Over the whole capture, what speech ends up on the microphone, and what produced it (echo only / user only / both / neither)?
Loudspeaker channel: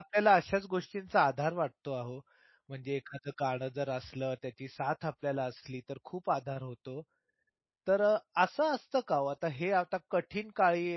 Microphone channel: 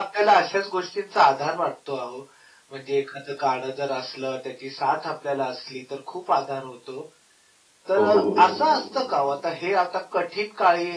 both